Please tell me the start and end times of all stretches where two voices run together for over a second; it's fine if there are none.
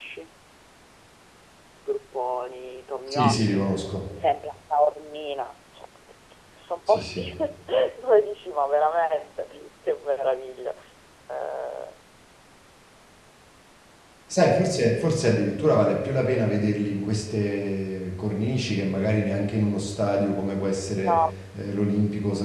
none

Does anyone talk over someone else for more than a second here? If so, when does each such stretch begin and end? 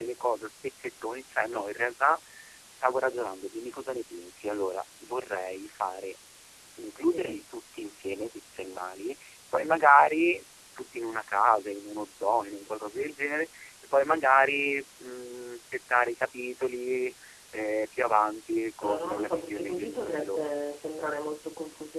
18.8-20.5

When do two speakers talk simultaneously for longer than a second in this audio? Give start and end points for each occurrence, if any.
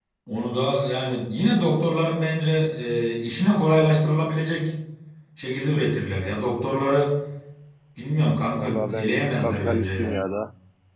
8.5-10.2

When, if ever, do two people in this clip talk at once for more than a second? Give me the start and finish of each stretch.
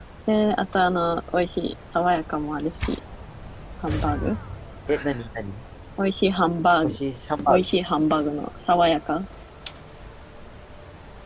none

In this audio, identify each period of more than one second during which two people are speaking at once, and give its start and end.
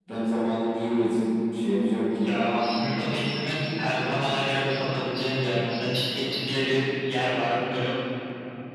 none

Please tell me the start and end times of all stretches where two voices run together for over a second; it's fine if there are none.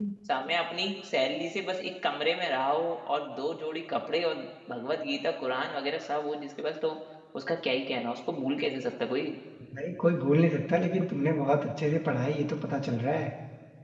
none

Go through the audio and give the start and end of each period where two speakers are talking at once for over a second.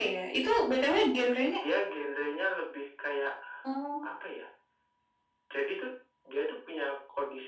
none

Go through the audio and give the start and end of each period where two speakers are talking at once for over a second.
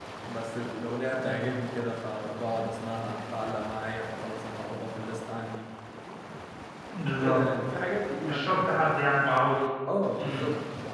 none

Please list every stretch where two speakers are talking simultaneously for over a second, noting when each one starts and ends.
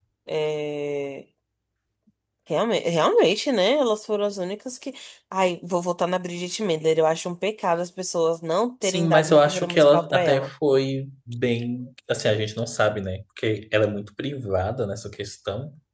8.8-10.5

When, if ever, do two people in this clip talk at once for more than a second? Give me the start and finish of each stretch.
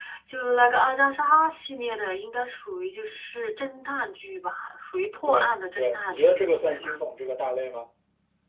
5.2-6.5

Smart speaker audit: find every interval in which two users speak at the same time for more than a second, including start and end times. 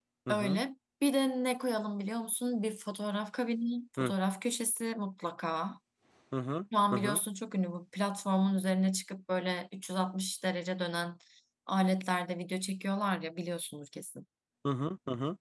none

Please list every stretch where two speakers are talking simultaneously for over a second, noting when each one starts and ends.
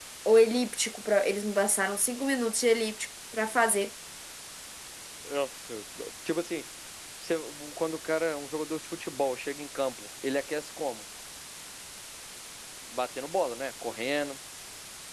none

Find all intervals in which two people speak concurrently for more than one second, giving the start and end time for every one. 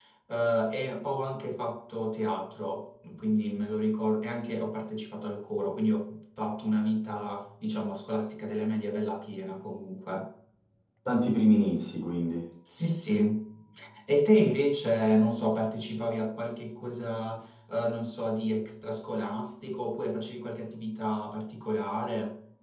none

